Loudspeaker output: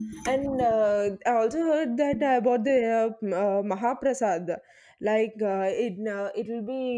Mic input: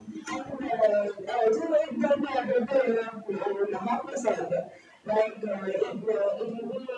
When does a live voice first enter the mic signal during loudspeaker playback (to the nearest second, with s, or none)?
none